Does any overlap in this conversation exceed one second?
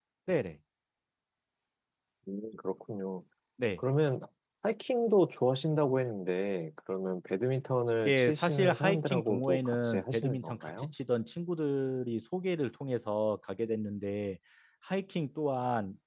Yes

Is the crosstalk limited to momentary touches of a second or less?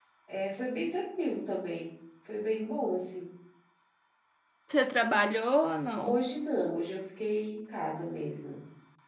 Yes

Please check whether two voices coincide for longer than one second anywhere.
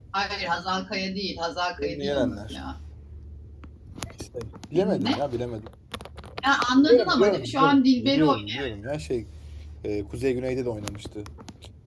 Yes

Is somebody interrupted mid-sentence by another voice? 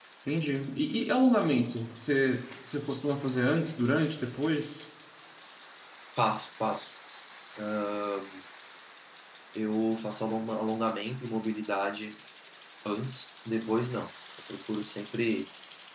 No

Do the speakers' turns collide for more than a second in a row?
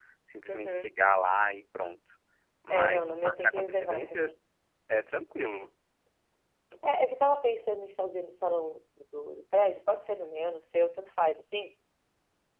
Yes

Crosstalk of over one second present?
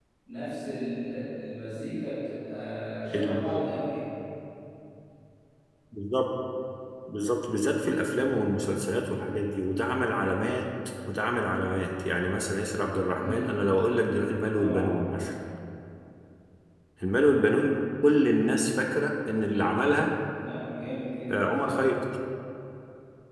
No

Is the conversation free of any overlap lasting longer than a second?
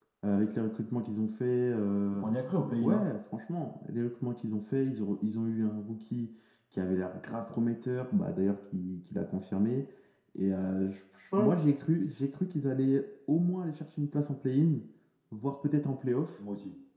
Yes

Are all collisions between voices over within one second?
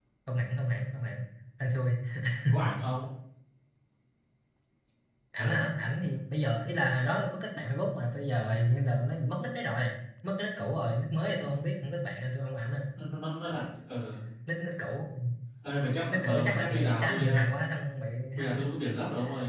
No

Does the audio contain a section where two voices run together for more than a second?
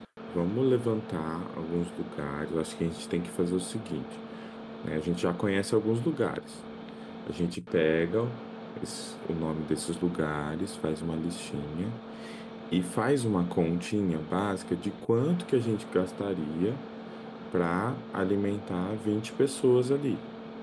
No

